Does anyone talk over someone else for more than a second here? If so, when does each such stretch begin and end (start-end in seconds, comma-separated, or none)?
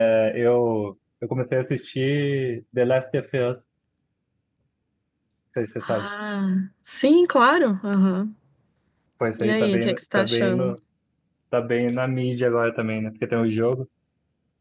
9.4-10.8